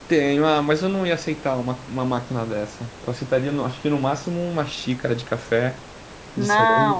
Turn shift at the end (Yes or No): Yes